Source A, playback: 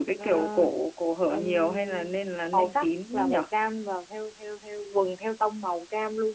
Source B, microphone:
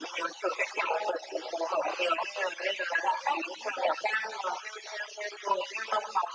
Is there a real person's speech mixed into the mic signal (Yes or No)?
No